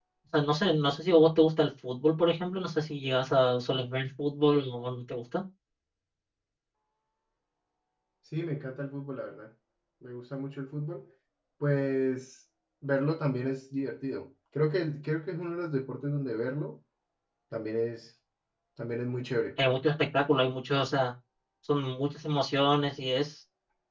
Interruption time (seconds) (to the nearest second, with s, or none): none